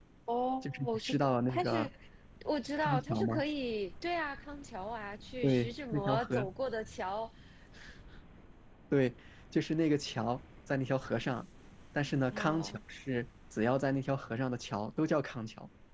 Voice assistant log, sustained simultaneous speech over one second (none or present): present